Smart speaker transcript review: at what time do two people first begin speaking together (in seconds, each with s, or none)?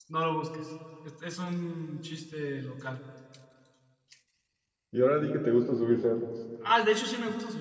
none